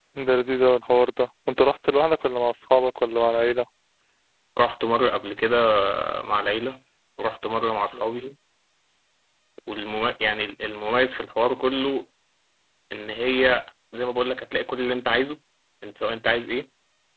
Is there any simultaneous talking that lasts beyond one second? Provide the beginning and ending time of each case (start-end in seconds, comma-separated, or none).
none